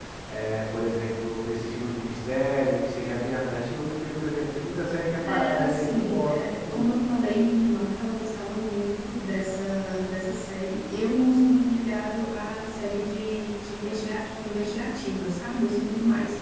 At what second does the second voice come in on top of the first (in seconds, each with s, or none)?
5.2 s